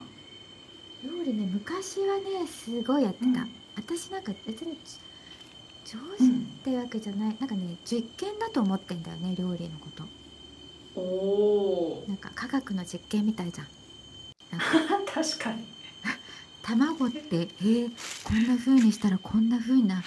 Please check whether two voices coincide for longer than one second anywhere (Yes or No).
No